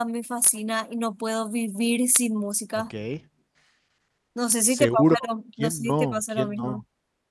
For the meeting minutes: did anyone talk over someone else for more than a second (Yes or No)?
Yes